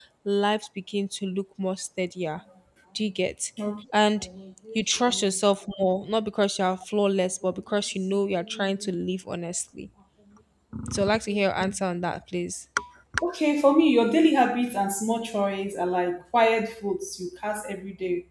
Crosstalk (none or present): none